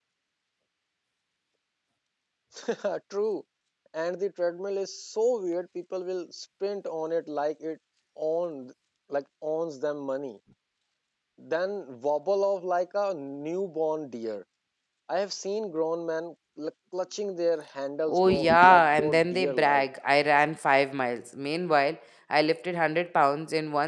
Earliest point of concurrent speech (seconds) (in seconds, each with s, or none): 18.1 s